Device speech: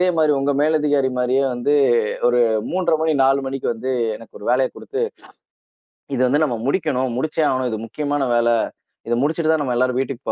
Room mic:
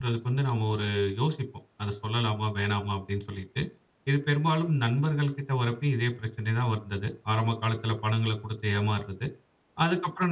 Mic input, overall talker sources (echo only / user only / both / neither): user only